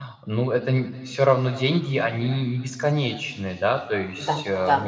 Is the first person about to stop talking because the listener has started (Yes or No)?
Yes